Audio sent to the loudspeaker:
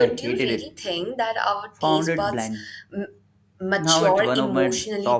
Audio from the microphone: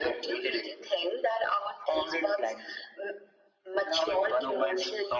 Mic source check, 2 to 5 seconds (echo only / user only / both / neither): echo only